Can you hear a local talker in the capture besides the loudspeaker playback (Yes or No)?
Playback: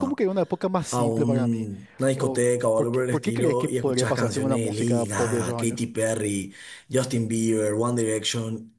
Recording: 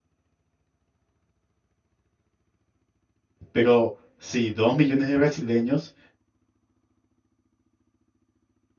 Yes